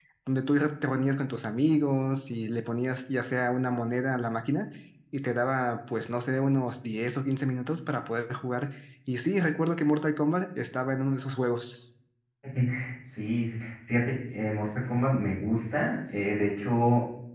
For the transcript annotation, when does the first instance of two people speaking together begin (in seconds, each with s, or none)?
none